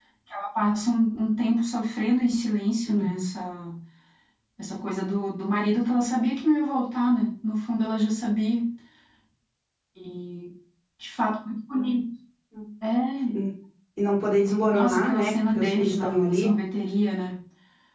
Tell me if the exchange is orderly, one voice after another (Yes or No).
No